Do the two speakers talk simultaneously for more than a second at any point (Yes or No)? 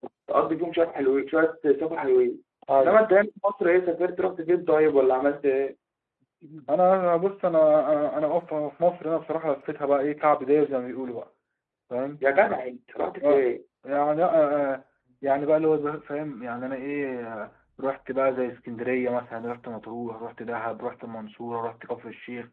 No